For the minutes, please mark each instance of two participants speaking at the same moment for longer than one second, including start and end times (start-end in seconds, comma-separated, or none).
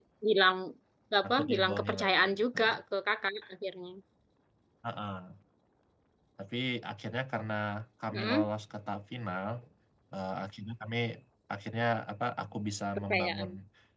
1.2-2.6